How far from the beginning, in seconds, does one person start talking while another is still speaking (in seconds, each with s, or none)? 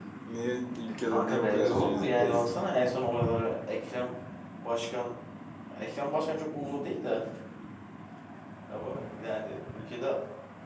1.0 s